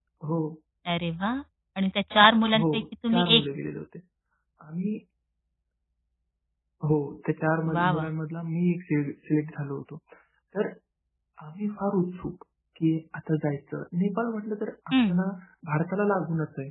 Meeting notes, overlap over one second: none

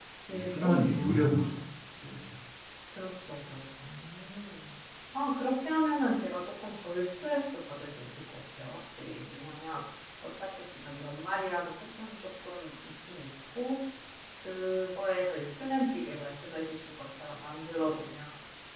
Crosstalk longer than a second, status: present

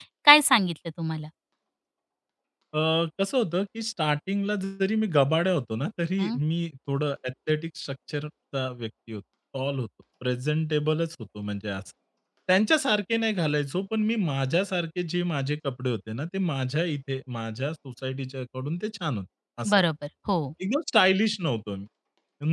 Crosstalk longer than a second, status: none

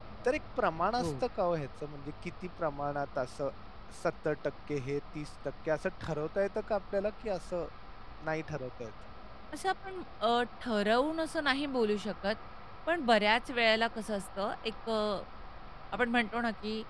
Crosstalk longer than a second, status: none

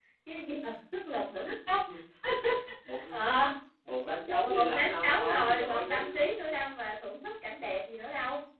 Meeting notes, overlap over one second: present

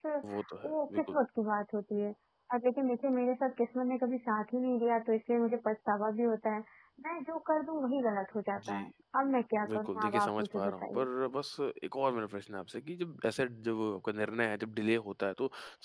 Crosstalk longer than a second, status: present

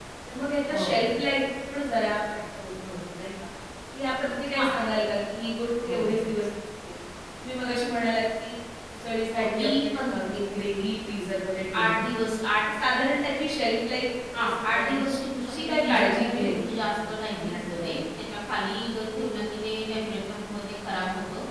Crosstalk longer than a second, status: present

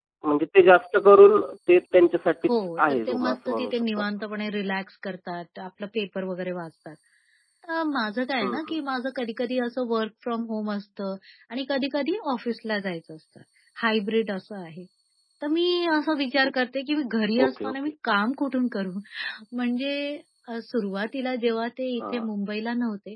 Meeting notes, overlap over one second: present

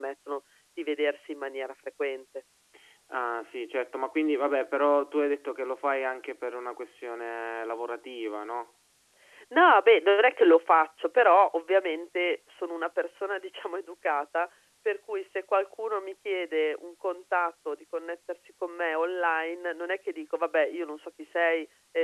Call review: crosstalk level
none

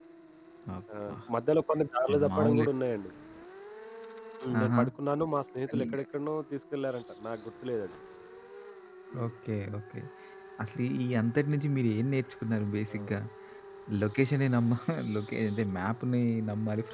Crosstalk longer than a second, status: none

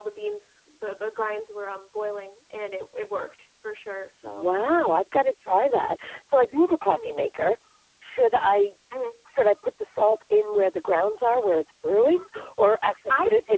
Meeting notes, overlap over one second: none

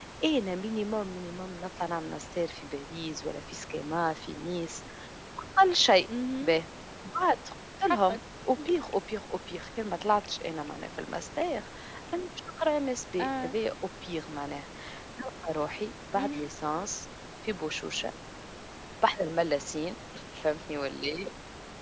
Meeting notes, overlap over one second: none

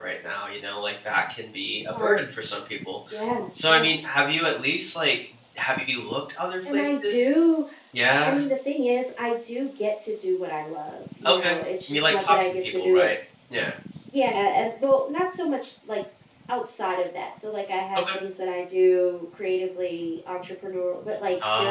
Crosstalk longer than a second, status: present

